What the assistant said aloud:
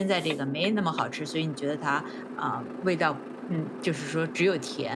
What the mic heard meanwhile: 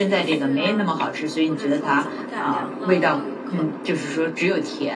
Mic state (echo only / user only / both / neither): both